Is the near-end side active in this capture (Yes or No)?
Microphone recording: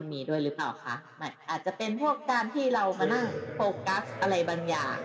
Yes